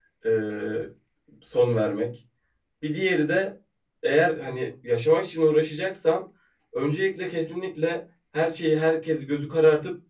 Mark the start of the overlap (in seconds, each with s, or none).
none